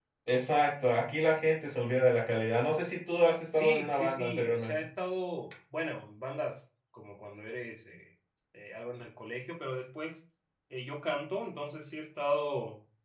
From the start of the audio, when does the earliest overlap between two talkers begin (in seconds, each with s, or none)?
3.5 s